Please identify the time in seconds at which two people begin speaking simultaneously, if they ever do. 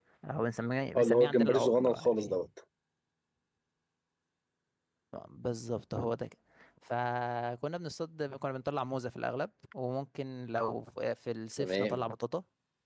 0.9 s

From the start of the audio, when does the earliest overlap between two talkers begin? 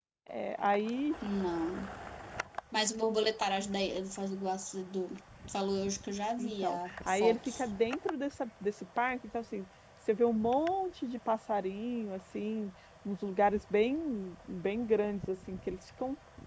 6.4 s

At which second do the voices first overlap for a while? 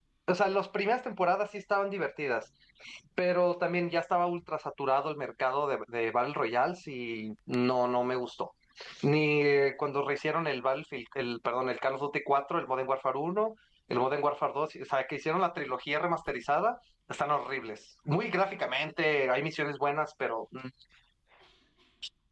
none

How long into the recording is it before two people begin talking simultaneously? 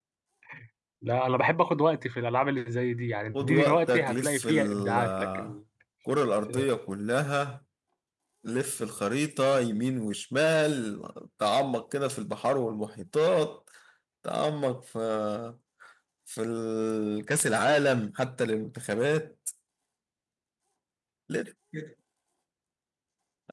3.3 s

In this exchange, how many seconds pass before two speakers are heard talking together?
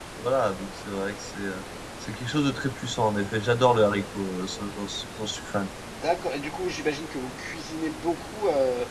none

